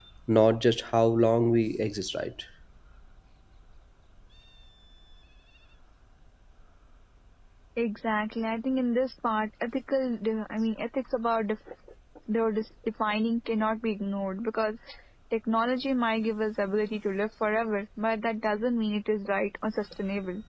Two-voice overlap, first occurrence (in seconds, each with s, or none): none